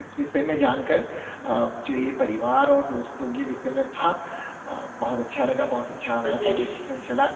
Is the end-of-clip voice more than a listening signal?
No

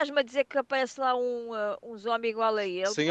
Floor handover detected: Yes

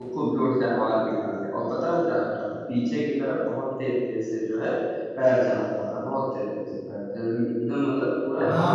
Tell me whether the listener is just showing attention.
No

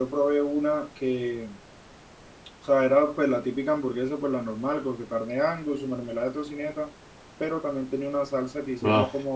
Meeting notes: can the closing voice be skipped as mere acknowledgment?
Yes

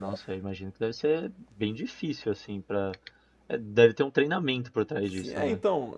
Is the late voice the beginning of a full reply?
Yes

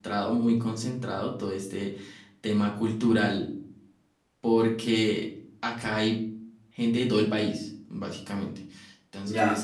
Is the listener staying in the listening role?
Yes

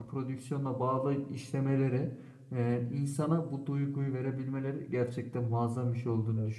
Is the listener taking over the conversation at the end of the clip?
No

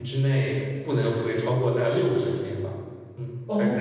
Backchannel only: No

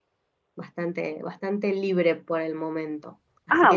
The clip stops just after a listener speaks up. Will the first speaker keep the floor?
Yes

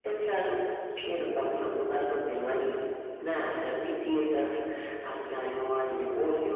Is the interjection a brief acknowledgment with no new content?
Yes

